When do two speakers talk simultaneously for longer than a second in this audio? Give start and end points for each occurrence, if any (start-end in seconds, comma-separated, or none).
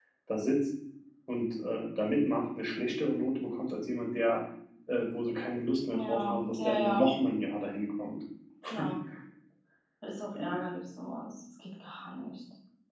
5.9-7.1